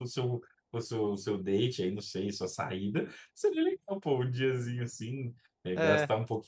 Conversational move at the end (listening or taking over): listening